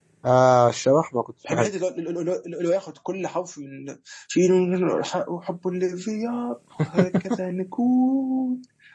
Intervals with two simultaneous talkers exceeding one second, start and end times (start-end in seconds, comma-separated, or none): none